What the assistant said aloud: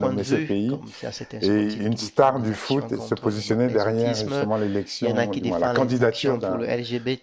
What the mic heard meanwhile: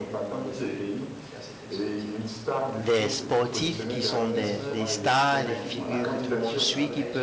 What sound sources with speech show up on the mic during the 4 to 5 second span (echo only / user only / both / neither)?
both